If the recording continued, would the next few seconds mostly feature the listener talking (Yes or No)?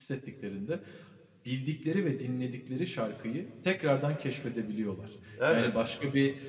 No